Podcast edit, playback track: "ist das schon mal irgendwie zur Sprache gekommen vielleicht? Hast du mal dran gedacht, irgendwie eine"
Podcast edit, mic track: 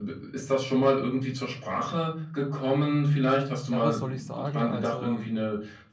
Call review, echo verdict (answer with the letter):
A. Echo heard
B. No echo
A